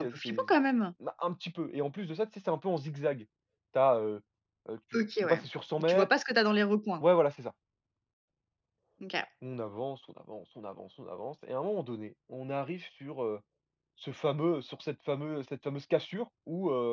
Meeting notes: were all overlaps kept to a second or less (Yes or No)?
Yes